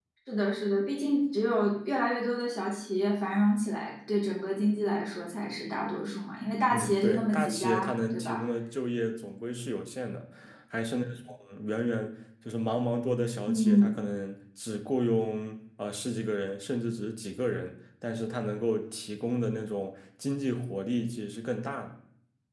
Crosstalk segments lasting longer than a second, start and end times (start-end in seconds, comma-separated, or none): 6.7-8.4